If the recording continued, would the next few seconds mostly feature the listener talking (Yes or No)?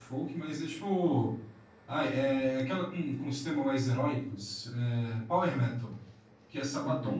No